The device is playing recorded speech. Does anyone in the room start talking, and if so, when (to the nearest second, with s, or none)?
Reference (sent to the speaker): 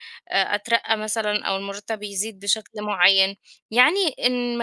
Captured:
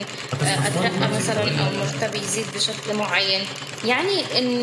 0 s